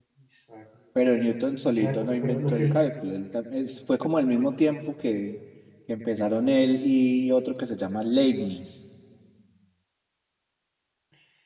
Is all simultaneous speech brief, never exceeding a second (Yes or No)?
No